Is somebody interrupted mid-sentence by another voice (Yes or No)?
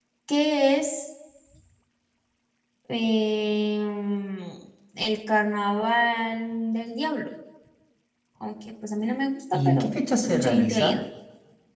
Yes